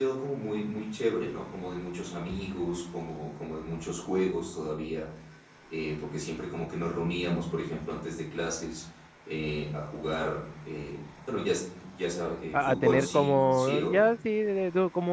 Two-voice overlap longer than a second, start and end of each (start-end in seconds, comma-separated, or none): 12.5-14.1